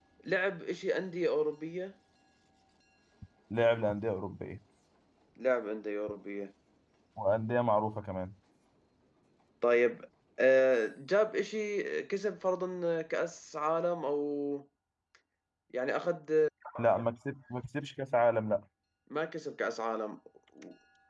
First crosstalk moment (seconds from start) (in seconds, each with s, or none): none